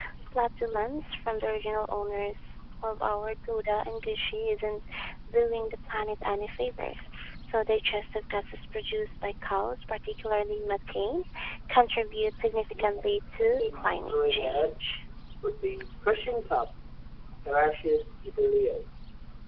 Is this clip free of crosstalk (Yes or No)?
No